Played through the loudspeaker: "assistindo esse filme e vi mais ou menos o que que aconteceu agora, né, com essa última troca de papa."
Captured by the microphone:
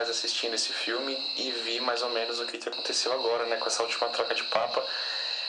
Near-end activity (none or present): none